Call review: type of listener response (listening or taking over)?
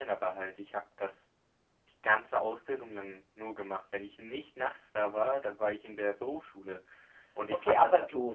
taking over